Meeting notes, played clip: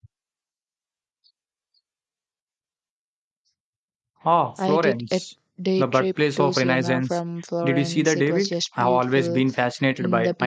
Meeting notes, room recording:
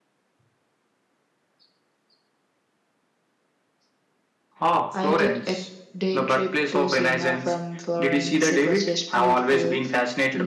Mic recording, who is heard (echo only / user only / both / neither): echo only